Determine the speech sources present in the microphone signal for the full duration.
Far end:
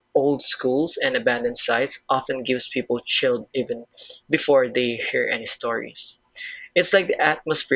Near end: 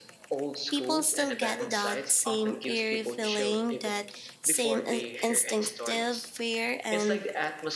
both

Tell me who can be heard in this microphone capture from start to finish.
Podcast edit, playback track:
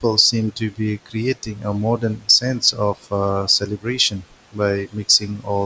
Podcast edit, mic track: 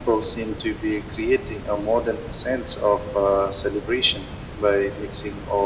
echo only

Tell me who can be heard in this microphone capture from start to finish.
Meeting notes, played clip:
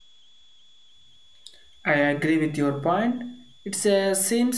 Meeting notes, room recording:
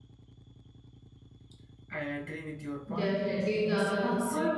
both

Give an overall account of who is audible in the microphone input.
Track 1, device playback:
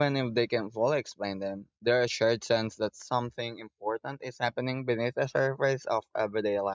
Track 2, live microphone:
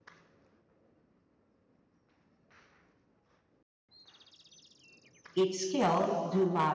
user only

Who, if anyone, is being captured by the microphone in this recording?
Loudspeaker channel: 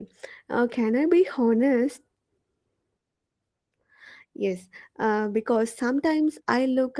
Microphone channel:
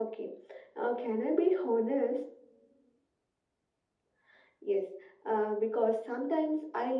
echo only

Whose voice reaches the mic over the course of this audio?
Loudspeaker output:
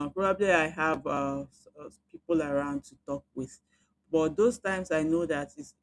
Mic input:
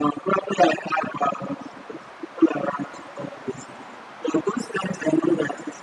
echo only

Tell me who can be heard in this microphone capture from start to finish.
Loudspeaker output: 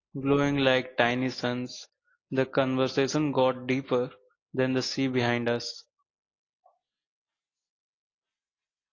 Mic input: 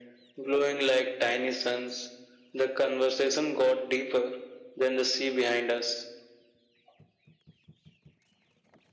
echo only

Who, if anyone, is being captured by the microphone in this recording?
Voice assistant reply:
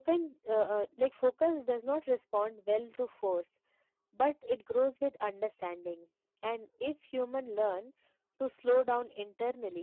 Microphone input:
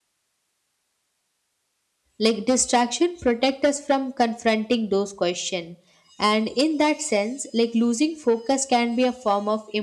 user only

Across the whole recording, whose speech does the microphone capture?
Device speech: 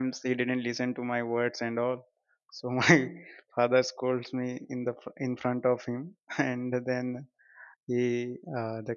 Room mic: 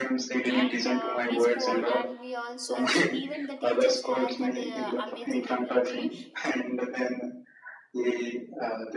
both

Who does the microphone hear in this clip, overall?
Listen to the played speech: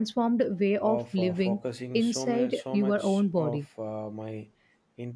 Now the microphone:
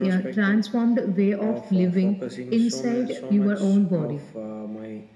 echo only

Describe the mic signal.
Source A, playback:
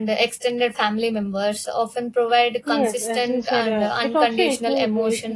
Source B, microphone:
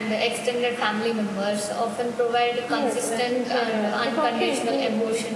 echo only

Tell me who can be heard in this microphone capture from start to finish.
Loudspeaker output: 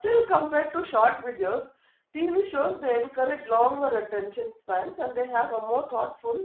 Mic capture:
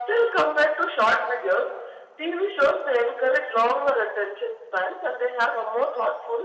echo only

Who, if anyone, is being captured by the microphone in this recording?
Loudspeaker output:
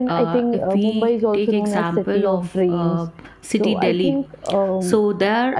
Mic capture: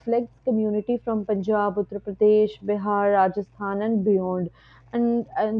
user only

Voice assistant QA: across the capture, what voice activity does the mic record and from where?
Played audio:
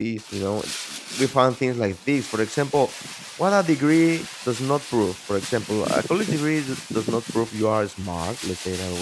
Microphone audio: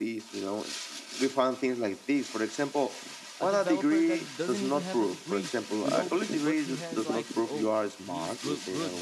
both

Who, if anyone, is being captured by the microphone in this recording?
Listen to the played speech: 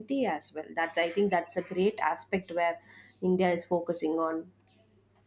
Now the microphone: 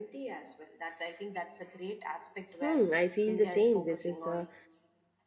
both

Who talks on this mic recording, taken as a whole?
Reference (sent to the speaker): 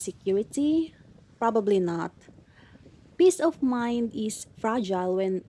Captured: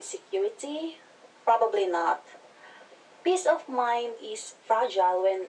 echo only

